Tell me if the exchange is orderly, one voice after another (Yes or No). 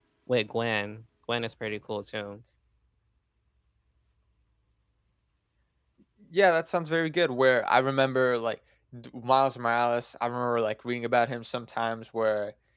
Yes